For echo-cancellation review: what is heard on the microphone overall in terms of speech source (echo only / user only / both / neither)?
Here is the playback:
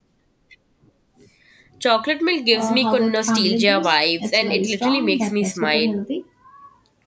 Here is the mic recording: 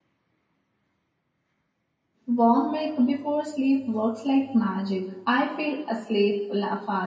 user only